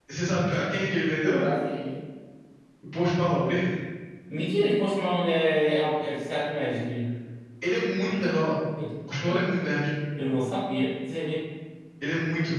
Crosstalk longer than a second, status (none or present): none